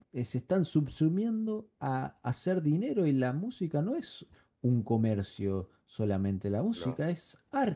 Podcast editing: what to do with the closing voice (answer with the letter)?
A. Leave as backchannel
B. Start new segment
A